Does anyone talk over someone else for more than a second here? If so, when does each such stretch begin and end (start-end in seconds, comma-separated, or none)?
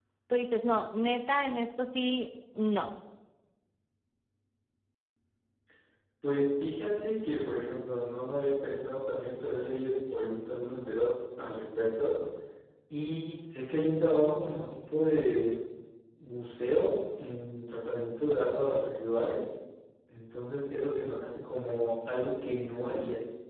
none